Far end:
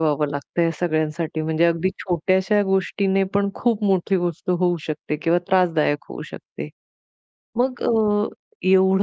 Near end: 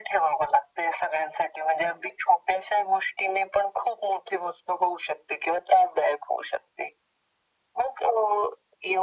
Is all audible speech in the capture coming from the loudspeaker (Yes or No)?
Yes